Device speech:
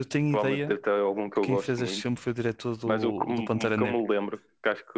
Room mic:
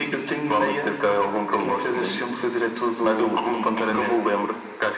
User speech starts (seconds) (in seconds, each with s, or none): none